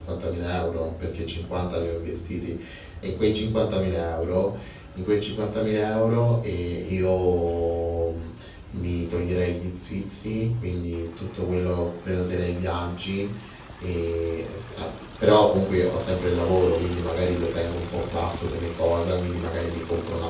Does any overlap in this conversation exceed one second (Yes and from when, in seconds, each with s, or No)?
No